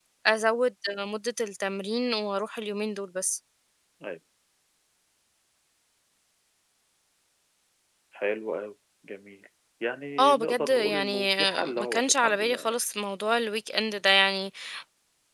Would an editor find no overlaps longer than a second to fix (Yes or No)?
No